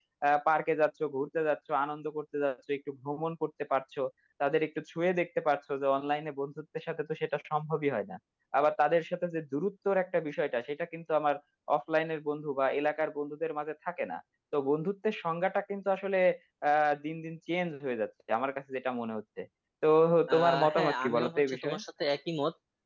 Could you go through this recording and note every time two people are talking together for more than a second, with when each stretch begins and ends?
20.3-21.8

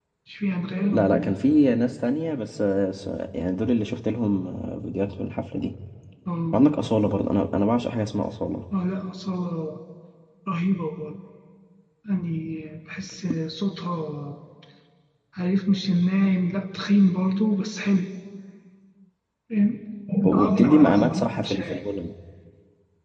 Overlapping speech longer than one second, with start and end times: 20.3-21.8

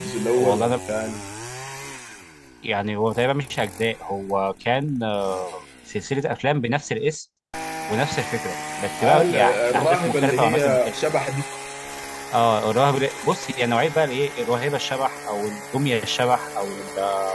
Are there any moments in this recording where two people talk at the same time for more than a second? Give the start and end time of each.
9.0-11.0

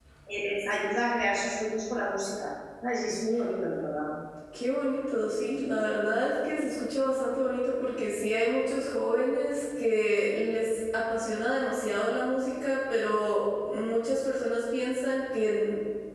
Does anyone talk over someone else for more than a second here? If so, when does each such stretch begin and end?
none

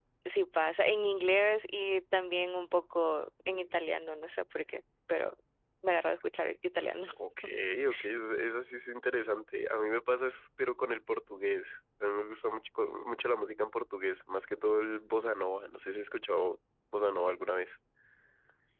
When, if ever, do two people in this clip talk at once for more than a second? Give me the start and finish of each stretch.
none

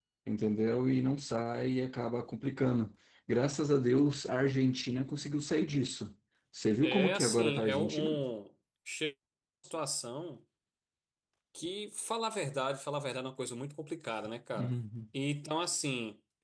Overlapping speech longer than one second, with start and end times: 6.8-8.2

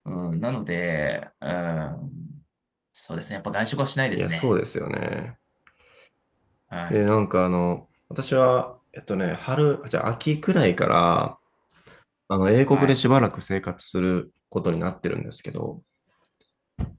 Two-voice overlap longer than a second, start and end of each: none

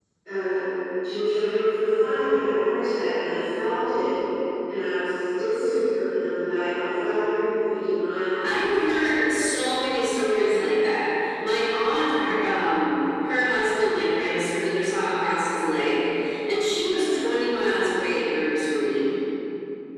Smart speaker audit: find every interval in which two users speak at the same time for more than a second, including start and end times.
none

